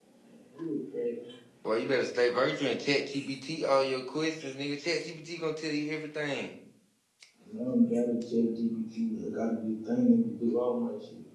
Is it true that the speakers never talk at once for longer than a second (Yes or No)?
Yes